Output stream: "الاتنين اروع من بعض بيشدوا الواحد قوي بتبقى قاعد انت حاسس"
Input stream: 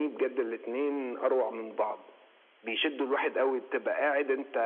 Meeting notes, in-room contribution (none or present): none